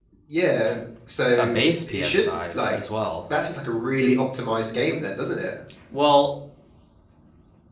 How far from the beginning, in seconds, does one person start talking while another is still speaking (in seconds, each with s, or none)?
1.3 s